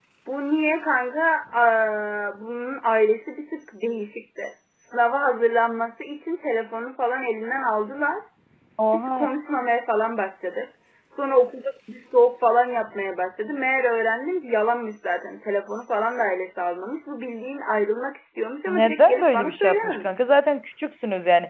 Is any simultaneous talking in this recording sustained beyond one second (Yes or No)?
Yes